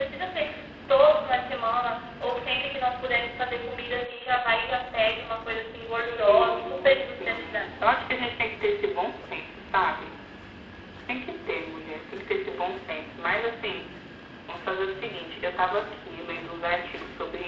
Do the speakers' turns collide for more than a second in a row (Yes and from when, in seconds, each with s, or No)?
Yes, from 6.3 s